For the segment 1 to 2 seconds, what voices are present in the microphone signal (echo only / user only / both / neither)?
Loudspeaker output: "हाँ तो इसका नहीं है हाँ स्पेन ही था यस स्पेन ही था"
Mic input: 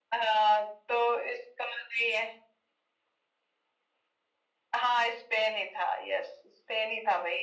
echo only